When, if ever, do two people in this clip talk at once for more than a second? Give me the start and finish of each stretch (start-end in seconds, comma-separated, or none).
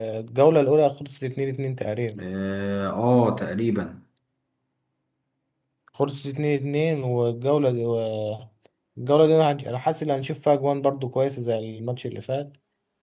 none